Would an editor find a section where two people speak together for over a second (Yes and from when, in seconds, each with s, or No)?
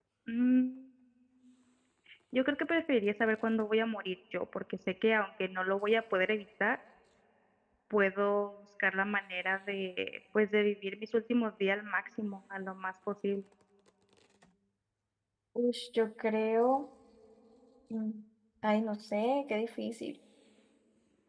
No